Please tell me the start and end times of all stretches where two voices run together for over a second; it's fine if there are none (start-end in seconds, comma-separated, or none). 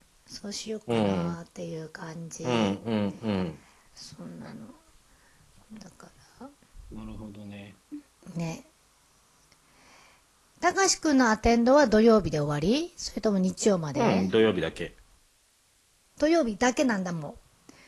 none